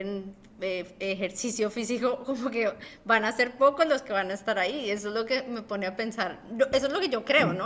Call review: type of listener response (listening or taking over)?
taking over